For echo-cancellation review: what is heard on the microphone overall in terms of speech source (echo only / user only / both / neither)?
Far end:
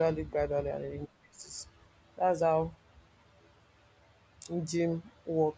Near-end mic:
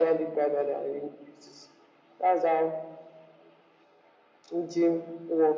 echo only